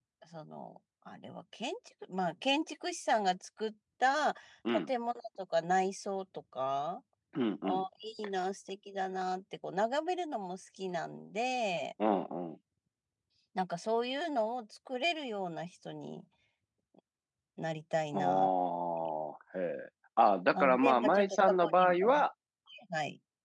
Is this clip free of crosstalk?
No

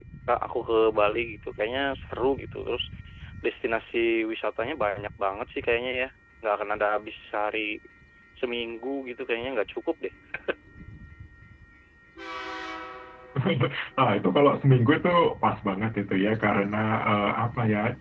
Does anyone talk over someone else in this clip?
No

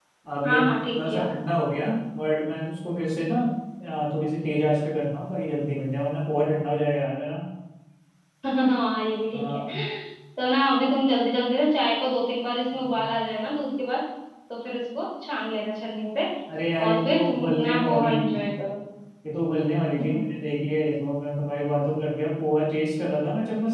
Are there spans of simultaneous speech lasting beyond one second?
Yes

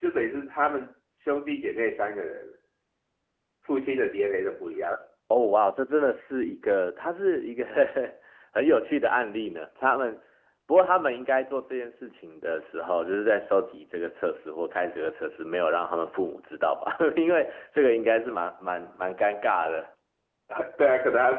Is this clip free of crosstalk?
Yes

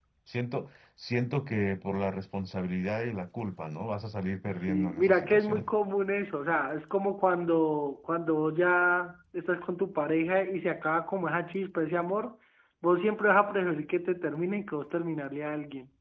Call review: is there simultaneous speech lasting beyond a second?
Yes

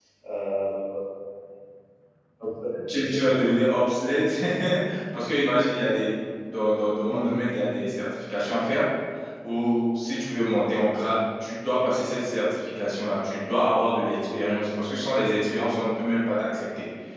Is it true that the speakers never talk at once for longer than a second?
Yes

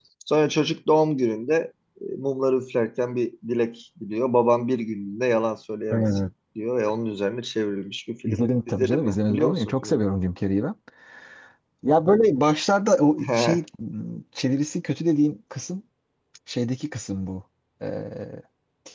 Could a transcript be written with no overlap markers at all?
No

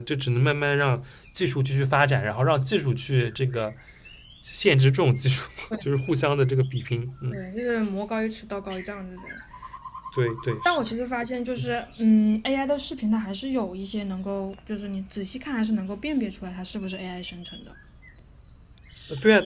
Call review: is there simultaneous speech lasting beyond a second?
No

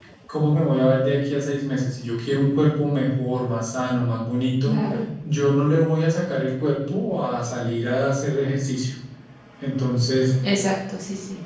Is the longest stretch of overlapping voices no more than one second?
Yes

